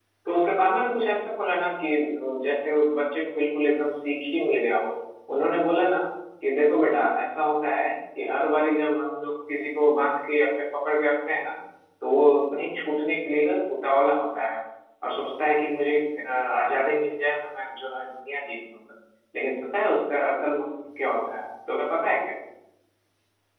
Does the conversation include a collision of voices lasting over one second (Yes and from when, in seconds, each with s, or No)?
No